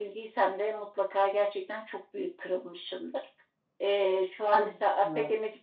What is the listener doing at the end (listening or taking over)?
listening